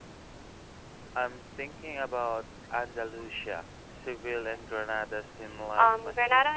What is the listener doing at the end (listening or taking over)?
taking over